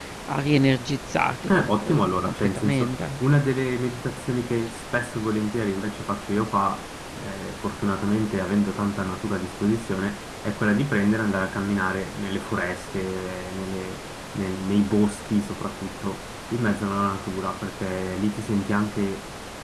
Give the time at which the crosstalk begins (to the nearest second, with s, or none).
1 s